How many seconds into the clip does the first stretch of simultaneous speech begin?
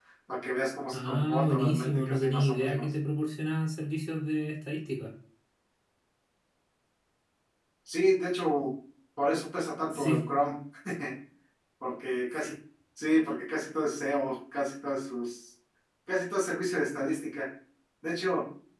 0.9 s

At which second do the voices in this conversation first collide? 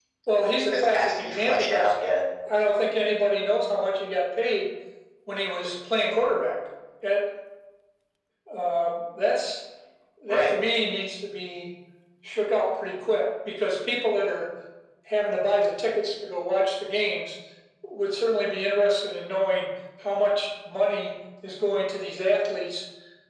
0.7 s

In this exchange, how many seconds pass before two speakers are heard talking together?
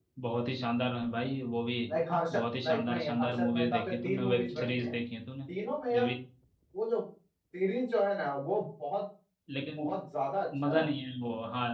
2.3 s

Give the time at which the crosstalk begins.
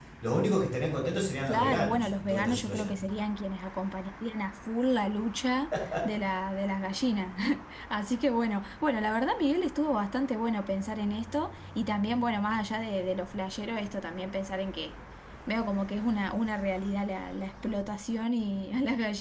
1.5 s

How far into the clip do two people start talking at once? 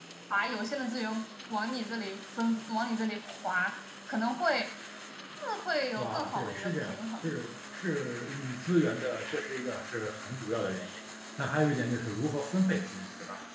6.0 s

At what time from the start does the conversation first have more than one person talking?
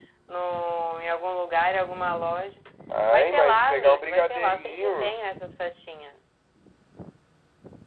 3.1 s

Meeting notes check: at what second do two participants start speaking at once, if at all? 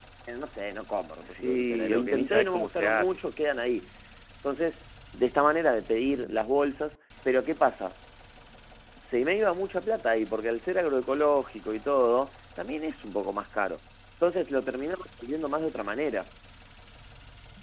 1.2 s

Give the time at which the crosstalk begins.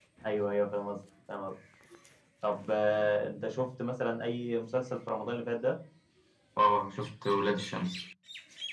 none

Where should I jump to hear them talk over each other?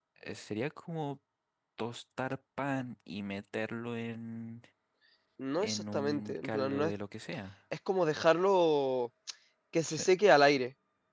5.6 s

